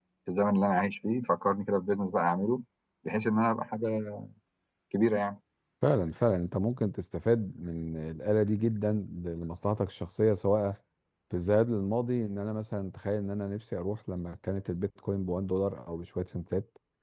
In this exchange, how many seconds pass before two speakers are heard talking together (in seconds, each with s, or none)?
none